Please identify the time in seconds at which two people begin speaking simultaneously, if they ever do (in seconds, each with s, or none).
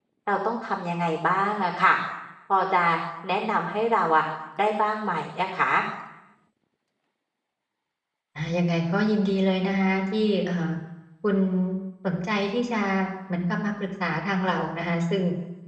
none